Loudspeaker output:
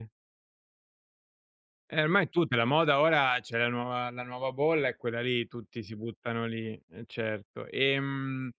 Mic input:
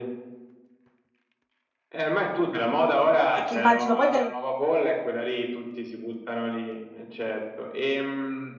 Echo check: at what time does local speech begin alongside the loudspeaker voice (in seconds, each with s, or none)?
3.3 s